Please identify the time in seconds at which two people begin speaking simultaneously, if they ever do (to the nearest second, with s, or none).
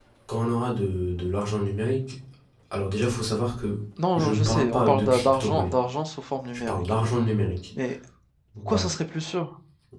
4 s